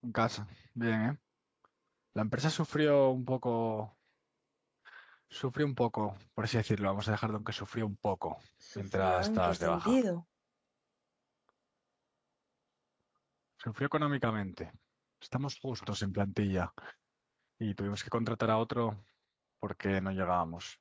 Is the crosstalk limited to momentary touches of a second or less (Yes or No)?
No